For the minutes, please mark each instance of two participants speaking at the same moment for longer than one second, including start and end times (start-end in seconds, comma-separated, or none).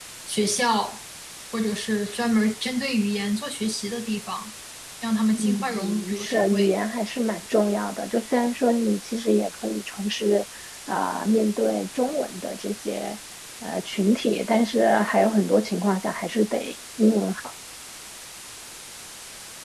5.3-6.7